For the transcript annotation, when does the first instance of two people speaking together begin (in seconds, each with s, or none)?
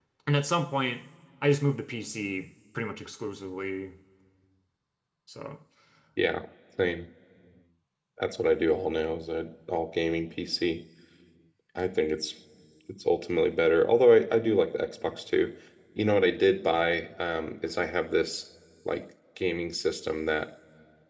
none